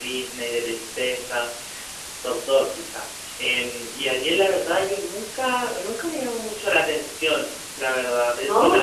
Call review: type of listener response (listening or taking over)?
listening